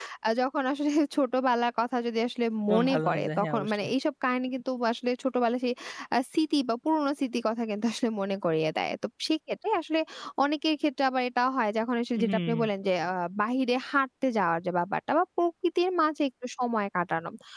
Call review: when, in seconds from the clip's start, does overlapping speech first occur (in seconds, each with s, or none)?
2.7 s